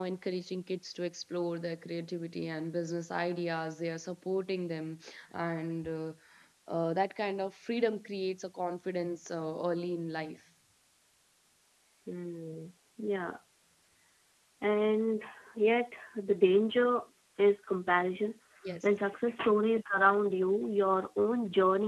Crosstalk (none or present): none